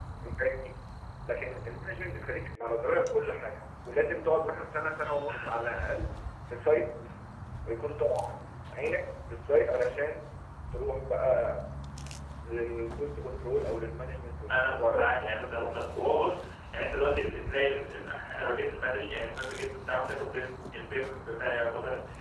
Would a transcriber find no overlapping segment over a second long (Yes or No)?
No